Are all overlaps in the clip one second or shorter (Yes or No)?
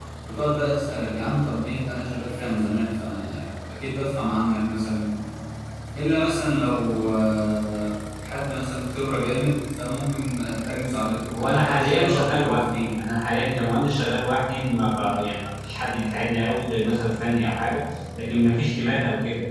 No